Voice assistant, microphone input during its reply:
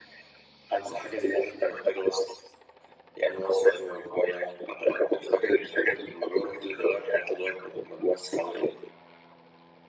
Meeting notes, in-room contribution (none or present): none